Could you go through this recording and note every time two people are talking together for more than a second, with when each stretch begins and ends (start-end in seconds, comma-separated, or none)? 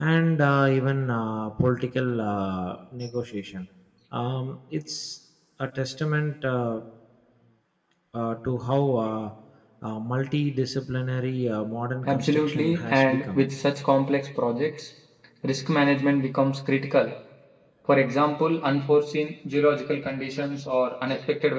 12.1-13.4